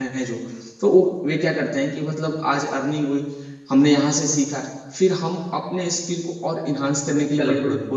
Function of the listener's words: listening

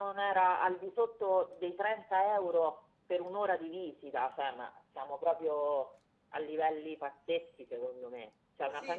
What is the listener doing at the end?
taking over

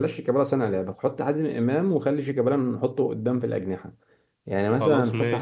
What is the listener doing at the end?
listening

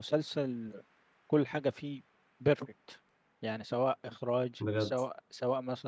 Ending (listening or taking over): listening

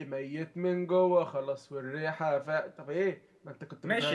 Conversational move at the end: taking over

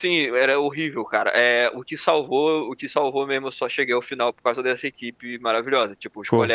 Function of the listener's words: listening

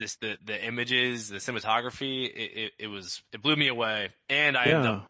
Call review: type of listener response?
listening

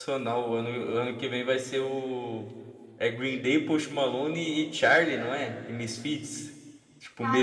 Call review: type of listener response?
taking over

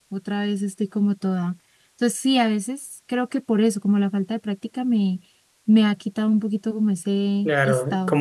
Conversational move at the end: taking over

